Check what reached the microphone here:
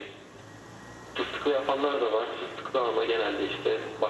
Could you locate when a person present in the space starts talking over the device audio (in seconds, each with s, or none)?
none